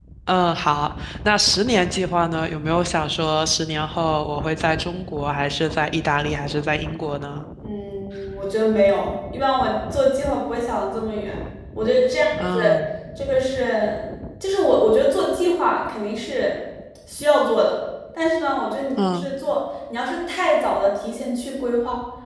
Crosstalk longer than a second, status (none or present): none